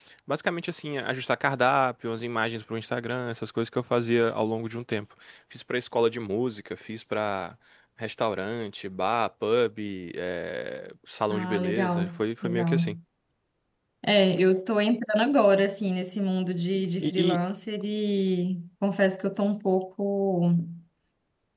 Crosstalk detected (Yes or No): Yes